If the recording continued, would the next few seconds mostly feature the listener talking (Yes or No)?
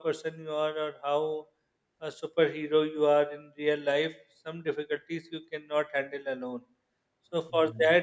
No